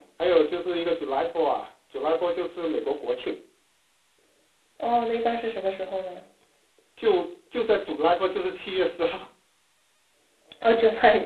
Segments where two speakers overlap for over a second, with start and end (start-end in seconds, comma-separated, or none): none